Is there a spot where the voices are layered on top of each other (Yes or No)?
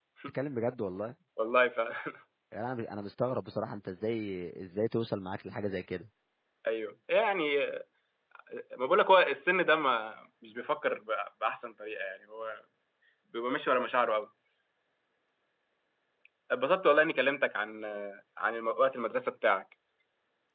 No